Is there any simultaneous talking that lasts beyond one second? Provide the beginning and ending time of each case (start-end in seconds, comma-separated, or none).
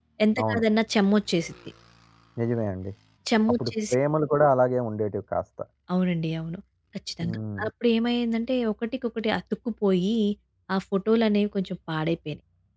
none